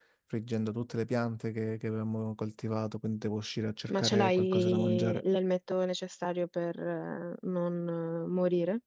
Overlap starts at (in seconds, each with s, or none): 3.9 s